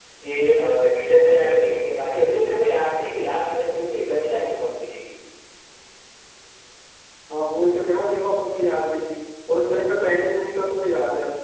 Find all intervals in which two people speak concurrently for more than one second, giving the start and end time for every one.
none

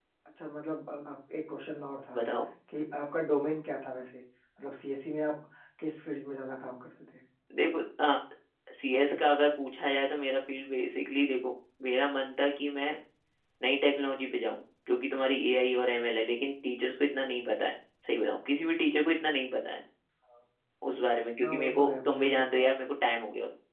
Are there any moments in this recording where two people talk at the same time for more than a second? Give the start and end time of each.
21.4-22.7

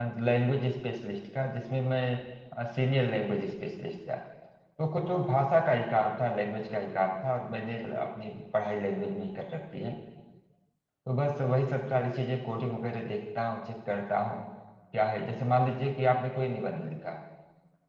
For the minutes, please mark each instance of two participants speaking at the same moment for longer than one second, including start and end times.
none

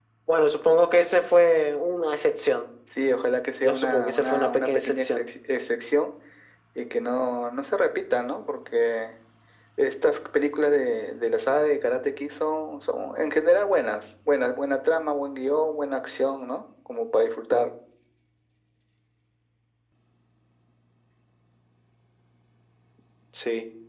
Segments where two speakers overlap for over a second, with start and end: 3.6-5.3

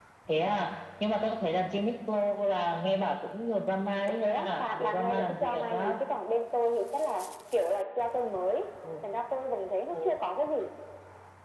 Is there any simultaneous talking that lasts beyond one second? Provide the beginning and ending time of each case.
4.1-6.0

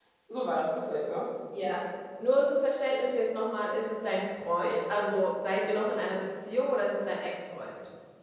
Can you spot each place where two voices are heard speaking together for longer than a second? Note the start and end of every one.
none

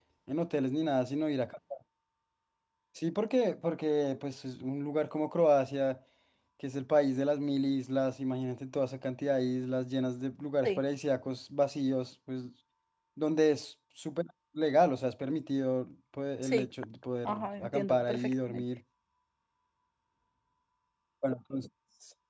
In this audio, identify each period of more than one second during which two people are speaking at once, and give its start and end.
17.2-18.6

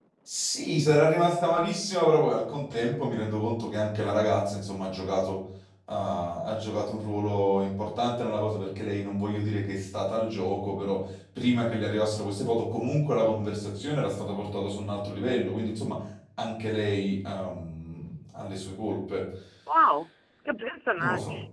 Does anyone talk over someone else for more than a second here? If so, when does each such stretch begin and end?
none

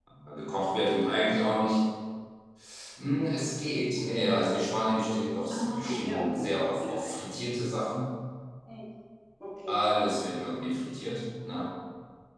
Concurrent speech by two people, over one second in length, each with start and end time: 5.5-7.1

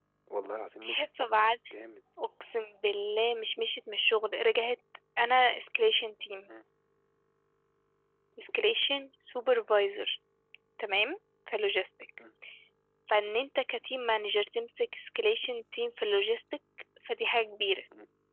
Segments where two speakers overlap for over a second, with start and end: none

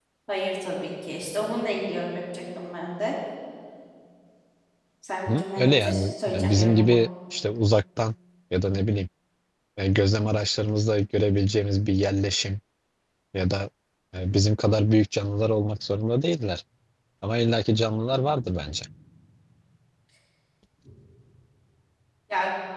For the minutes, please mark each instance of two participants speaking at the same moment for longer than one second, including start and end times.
5.3-7.0

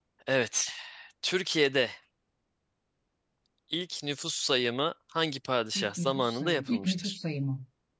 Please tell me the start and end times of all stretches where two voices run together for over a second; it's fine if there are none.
5.8-7.2

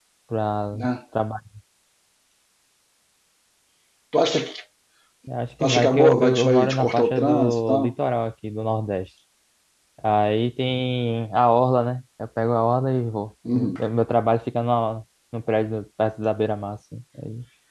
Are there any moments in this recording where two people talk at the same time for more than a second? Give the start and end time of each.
5.6-7.8

